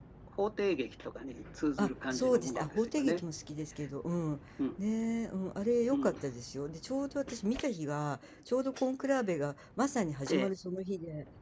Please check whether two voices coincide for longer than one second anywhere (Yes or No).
Yes